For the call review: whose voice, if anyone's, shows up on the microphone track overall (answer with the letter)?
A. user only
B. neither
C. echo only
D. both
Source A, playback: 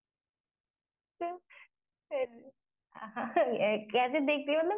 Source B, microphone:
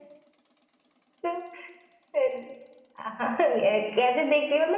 C